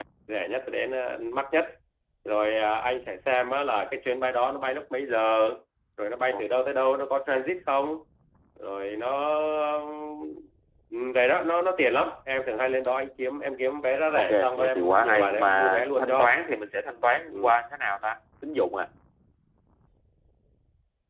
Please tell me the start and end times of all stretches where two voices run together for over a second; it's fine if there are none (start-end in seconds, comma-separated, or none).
14.1-16.4